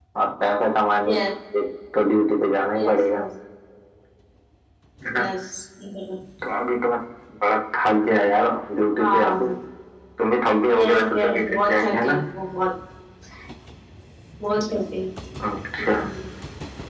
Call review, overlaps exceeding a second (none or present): present